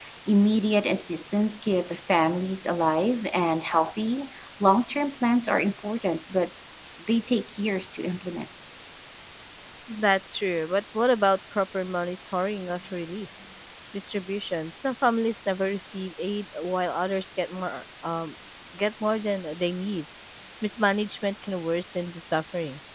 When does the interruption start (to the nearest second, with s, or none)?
none